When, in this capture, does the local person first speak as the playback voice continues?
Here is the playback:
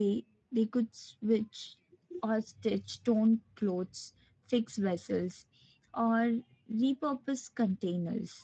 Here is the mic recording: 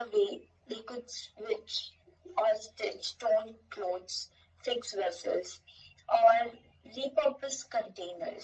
none

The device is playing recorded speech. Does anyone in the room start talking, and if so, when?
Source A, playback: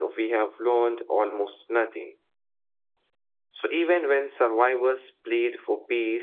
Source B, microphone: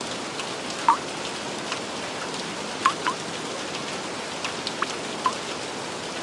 none

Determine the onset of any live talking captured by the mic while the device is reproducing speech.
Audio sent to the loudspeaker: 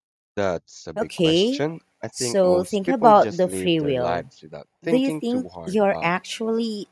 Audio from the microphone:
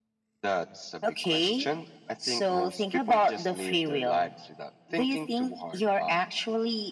none

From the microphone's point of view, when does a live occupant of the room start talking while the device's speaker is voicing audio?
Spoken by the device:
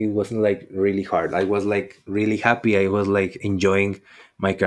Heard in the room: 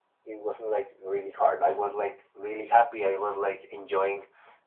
none

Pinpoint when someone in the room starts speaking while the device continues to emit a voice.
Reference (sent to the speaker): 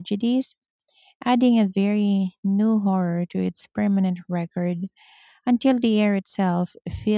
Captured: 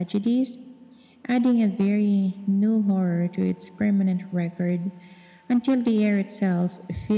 none

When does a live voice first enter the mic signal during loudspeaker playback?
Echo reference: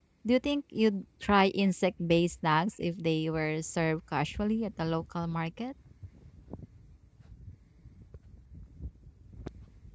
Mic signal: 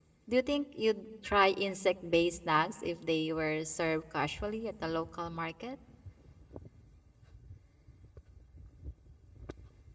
none

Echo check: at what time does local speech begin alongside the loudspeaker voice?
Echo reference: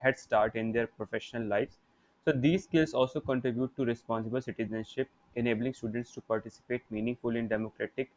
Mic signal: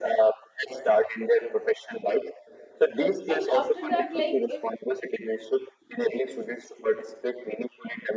2.9 s

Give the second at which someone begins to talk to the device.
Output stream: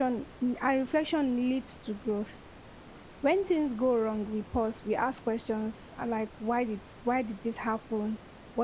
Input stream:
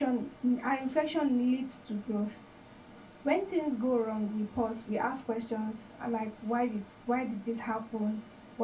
none

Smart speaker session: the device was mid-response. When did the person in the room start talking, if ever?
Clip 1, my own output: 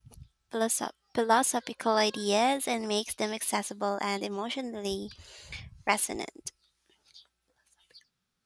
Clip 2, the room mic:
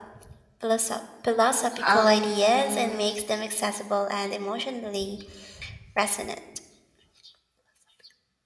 1.8 s

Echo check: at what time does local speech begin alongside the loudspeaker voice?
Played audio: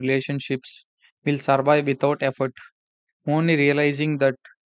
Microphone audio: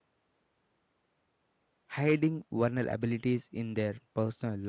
1.9 s

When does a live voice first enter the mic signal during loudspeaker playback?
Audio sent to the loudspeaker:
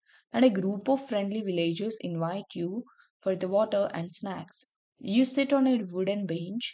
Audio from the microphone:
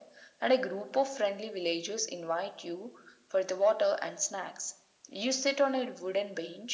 none

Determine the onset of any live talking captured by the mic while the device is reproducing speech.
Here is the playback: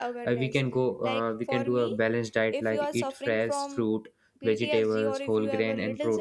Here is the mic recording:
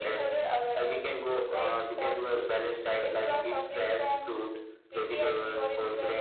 none

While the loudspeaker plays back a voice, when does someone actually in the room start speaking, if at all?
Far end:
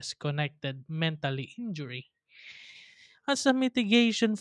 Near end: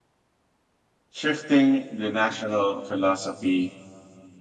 1.1 s

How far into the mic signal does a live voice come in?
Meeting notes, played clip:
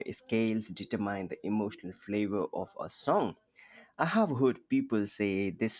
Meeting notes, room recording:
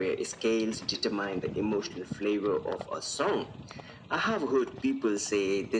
none

